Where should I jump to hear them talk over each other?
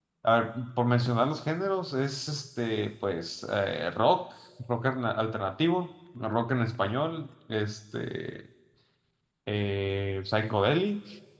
none

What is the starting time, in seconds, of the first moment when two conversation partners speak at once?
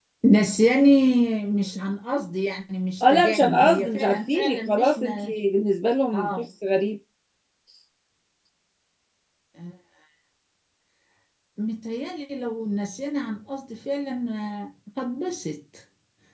3 s

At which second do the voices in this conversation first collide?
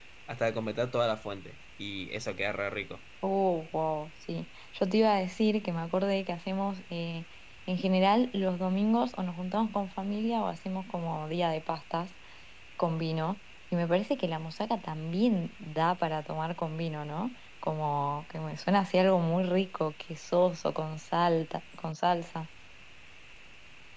none

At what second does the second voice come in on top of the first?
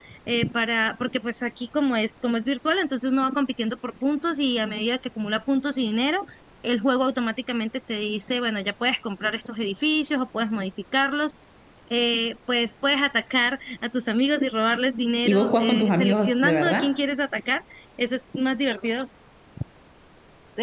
15 s

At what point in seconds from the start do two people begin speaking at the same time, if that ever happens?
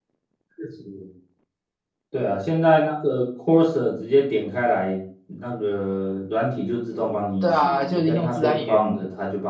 7 s

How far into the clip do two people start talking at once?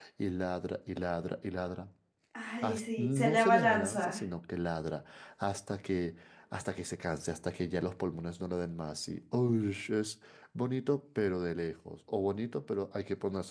3 s

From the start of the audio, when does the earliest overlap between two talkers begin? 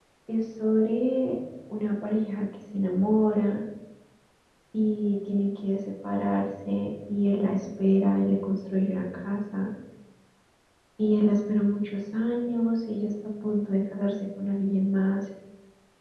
none

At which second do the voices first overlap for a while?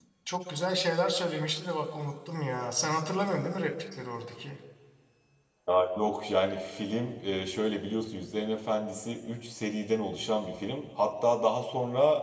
none

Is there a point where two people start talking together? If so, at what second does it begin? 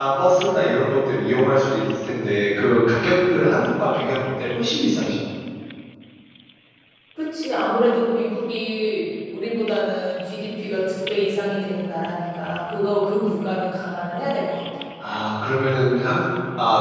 none

